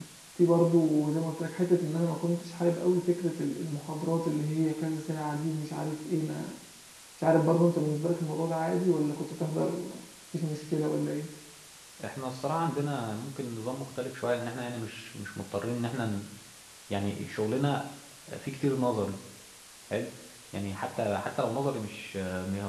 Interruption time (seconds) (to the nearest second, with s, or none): none